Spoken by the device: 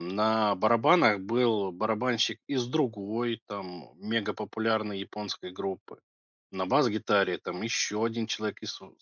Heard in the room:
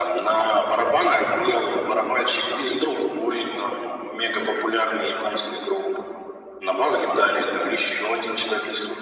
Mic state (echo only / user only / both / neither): echo only